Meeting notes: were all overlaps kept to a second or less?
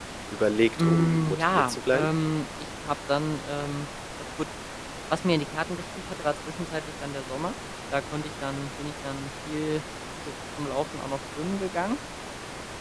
No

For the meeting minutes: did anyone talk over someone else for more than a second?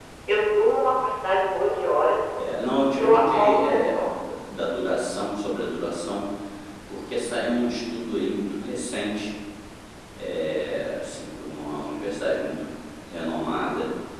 Yes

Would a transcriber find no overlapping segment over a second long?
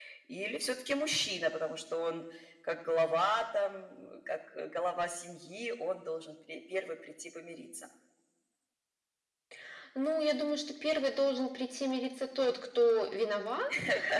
Yes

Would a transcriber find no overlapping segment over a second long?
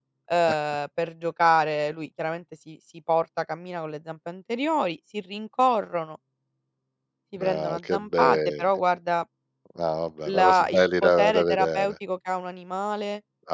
No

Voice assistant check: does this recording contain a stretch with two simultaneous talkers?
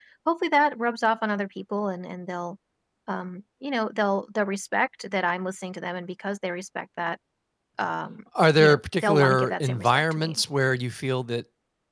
Yes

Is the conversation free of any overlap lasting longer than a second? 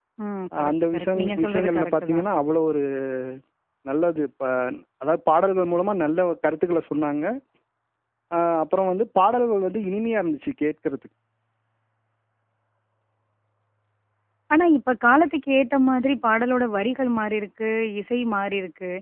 No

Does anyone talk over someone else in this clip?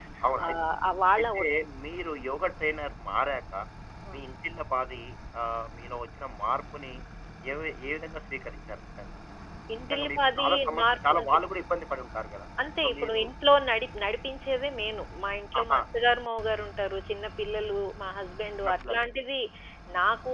Yes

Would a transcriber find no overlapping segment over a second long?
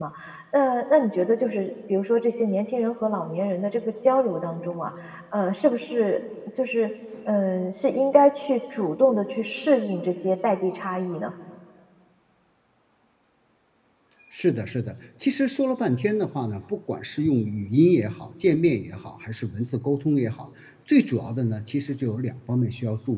Yes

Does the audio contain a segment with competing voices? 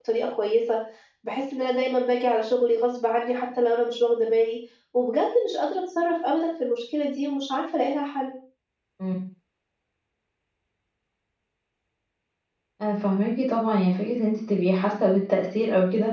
No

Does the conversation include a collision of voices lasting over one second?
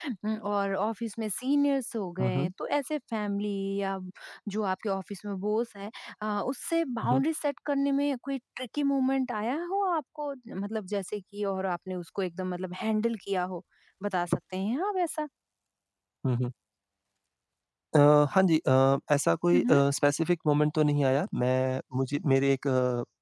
No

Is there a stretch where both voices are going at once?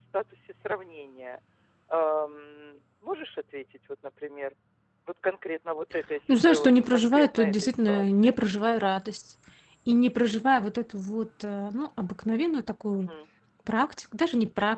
Yes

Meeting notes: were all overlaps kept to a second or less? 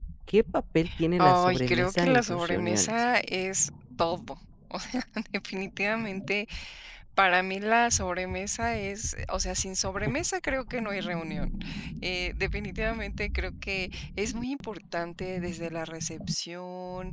No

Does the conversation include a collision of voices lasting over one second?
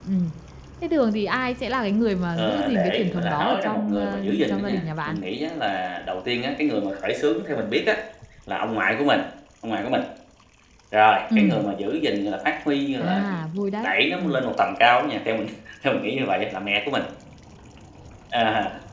Yes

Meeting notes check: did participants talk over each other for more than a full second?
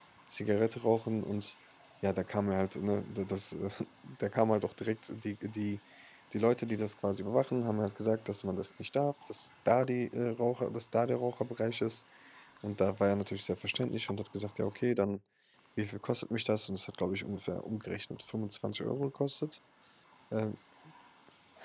No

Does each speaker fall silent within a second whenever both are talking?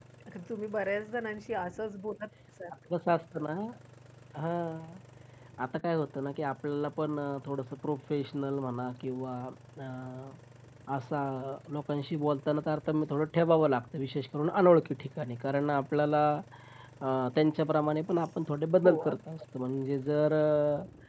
Yes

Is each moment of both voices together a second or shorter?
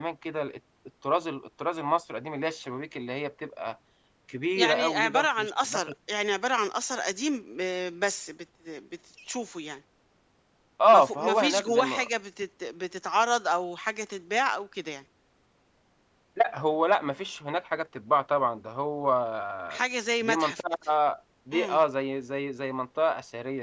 No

